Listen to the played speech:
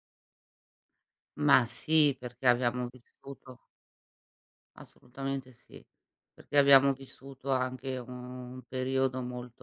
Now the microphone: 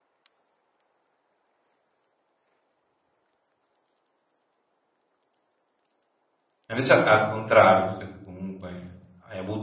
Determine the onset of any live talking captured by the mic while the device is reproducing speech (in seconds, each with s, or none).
6.7 s